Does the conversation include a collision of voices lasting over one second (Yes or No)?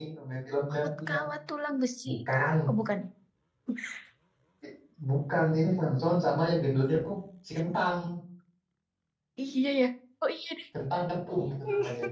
No